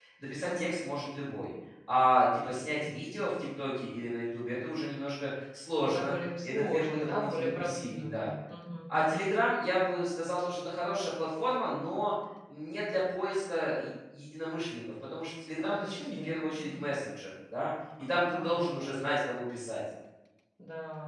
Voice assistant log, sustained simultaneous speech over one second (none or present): present